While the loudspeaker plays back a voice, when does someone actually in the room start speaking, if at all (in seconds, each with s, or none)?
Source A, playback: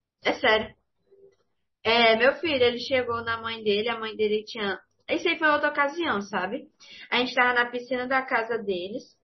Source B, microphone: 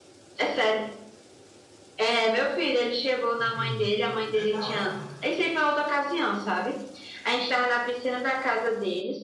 3.4 s